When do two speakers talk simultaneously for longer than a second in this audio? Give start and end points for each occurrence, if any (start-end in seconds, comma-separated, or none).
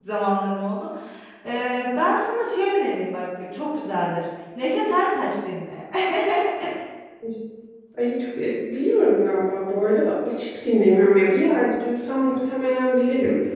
none